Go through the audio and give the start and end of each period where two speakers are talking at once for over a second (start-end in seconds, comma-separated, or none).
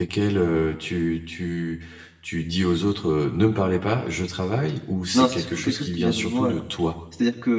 5.1-6.6